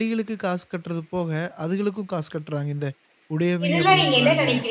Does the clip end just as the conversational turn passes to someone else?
Yes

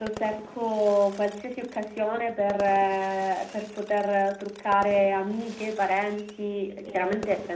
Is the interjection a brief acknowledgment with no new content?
Yes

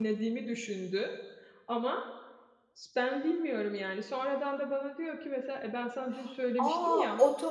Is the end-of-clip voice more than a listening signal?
Yes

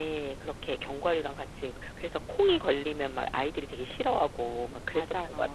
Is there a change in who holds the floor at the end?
Yes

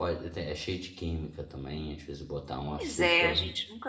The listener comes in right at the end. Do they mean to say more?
Yes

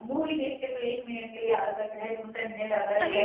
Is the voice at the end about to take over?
Yes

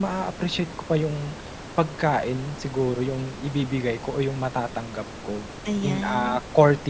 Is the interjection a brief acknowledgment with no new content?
Yes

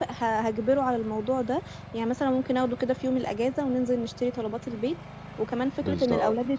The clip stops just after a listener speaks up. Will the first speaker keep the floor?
Yes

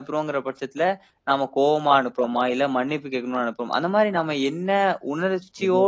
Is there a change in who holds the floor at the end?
No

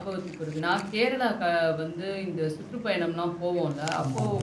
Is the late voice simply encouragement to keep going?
Yes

